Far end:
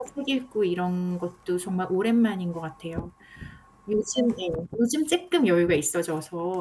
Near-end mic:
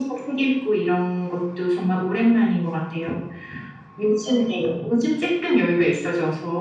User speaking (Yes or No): No